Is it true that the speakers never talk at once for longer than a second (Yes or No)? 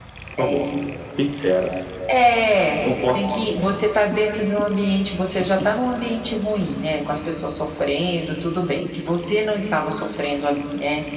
Yes